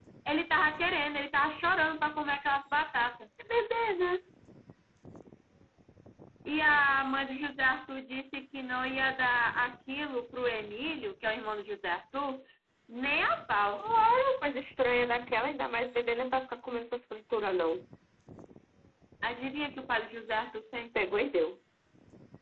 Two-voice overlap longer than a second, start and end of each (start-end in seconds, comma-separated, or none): none